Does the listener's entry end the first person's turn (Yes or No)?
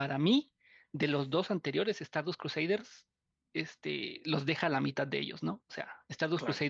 No